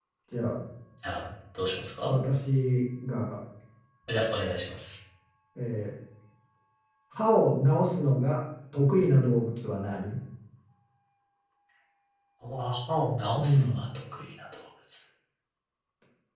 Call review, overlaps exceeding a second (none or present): none